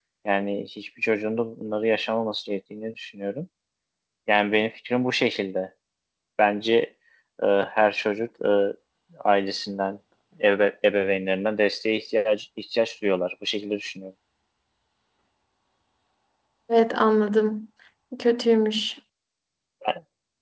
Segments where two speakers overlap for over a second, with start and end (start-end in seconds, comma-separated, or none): none